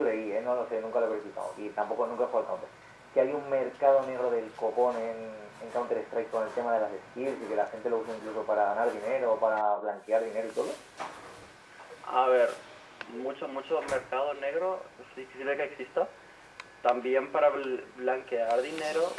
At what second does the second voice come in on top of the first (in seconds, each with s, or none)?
none